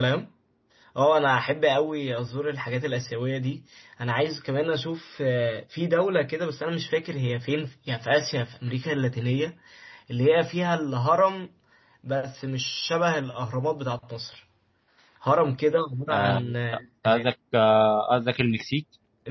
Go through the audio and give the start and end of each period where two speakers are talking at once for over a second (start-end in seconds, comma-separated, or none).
none